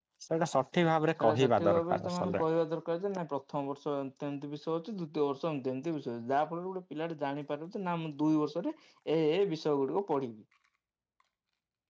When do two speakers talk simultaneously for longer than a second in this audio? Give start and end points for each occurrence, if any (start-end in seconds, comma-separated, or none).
1.2-2.4